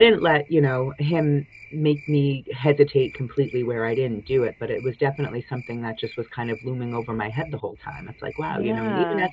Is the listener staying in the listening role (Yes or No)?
Yes